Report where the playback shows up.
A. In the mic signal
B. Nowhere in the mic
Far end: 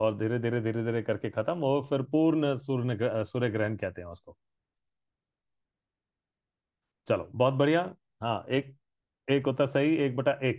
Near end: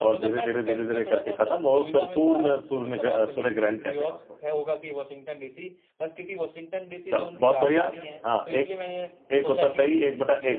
A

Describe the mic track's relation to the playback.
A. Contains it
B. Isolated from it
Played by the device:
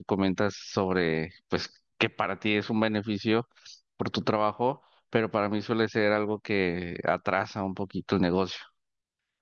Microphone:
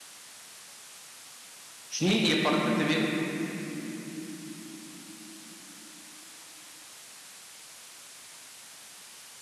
B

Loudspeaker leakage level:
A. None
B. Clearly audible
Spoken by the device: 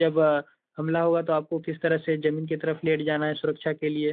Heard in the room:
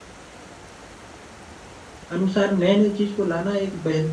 A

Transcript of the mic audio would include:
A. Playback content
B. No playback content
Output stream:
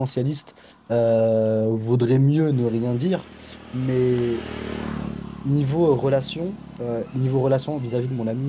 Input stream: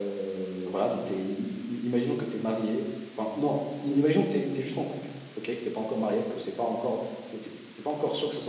B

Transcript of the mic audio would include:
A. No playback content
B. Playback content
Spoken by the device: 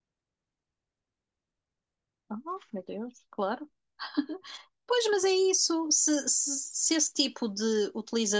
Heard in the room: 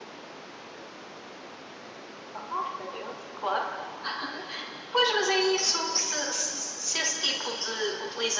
B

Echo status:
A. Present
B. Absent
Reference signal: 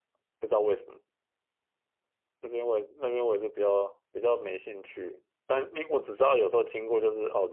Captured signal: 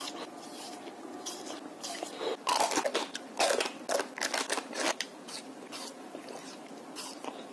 B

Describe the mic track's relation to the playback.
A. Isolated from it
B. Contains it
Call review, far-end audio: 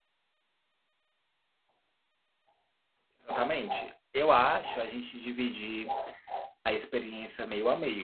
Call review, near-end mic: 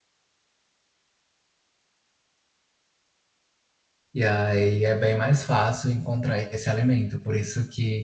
A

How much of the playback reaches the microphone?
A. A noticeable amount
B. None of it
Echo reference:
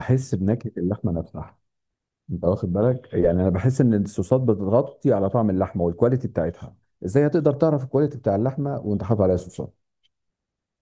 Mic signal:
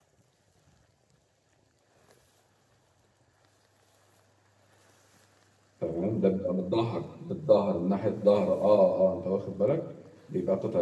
B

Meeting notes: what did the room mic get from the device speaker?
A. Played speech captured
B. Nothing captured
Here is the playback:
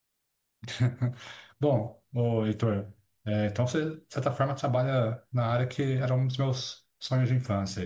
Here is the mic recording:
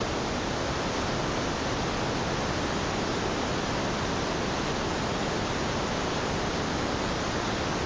B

